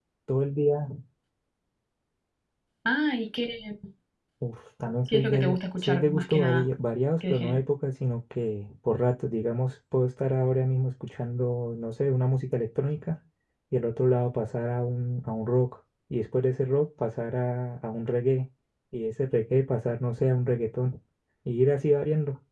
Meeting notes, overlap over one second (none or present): present